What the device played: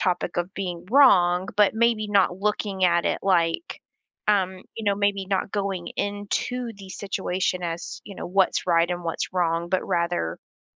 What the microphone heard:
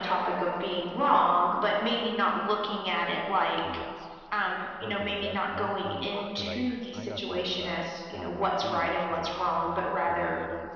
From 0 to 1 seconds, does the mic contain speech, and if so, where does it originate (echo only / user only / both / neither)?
echo only